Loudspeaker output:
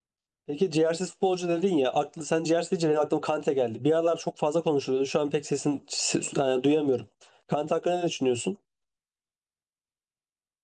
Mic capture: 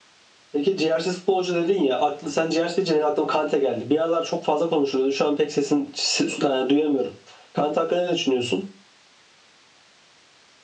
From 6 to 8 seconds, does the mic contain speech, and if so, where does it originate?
echo only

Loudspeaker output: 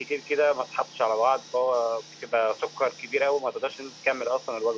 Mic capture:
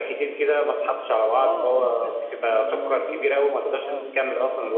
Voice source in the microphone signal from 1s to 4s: both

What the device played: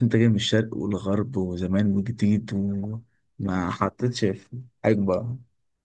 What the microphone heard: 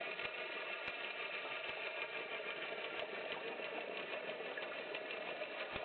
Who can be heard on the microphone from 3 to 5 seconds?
neither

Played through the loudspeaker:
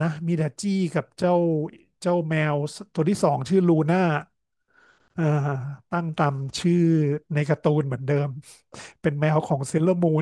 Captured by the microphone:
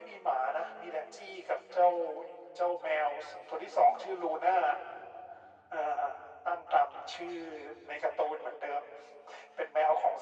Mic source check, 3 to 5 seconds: echo only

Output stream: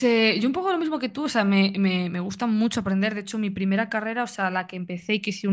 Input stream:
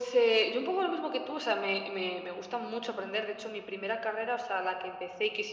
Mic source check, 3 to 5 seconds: echo only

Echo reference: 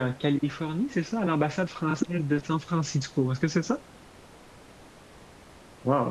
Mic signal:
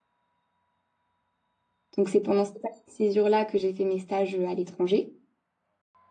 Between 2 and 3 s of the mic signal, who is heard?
user only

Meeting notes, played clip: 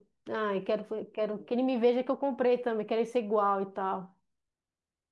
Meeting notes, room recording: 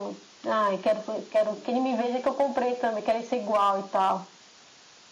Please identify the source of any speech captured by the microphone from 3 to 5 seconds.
echo only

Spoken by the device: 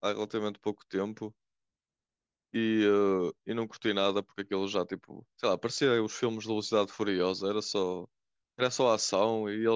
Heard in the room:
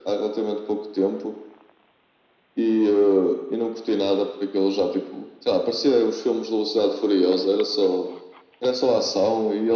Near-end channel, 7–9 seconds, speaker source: echo only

